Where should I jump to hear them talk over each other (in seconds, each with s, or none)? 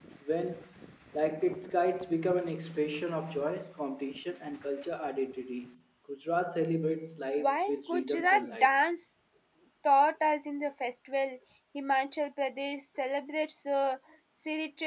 7.4 s